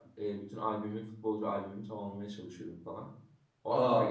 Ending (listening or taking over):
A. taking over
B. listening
A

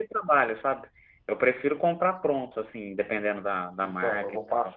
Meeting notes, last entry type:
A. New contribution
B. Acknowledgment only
A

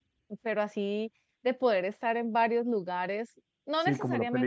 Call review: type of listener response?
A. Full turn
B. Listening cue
A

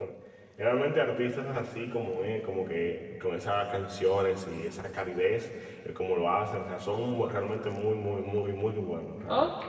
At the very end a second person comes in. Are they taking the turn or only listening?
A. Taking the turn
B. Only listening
A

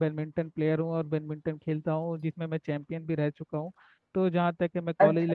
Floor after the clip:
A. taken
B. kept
A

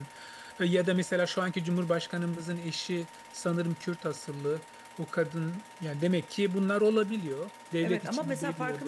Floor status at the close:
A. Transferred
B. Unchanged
A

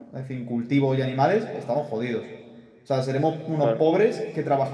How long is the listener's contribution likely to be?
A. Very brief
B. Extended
A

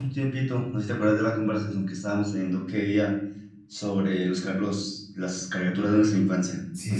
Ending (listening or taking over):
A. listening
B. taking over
B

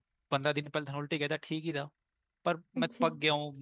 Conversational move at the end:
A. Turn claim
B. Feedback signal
B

